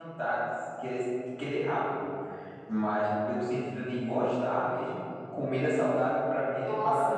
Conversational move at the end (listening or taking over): taking over